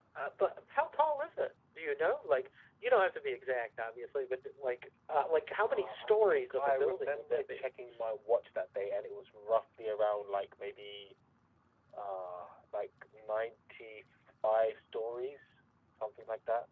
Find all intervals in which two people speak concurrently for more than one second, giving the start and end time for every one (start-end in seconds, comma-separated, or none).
5.7-7.7